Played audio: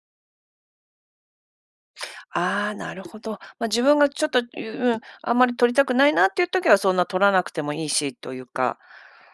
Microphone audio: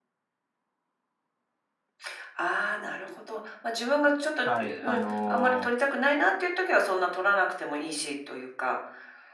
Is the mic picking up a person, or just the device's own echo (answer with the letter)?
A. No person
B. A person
B